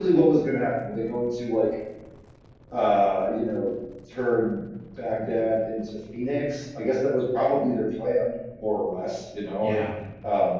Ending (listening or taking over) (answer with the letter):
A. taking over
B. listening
B